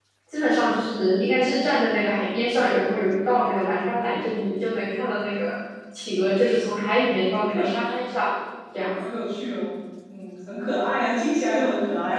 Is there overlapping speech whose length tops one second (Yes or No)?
No